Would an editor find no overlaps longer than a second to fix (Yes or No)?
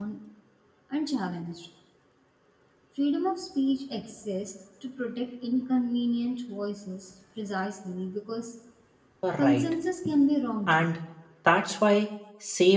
Yes